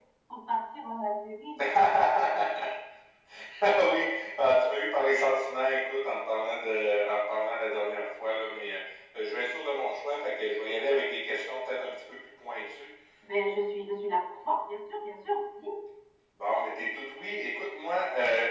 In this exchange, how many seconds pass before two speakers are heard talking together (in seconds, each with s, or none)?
none